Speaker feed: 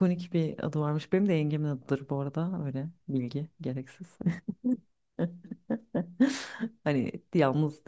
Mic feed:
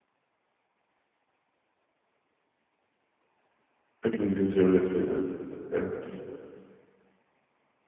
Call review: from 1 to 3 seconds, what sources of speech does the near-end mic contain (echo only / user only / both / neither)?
neither